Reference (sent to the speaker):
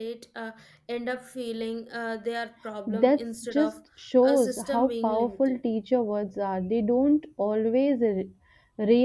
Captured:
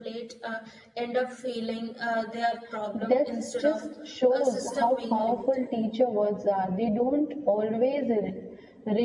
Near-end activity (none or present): none